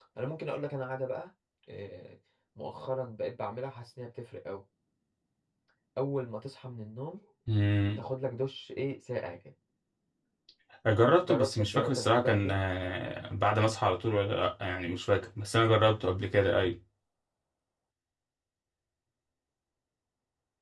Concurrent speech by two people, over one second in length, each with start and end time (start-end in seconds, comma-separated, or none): 11.3-12.6